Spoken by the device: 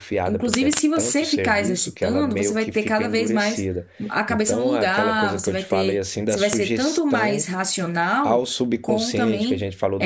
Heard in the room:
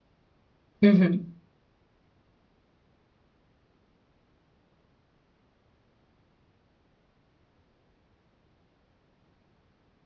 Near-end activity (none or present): present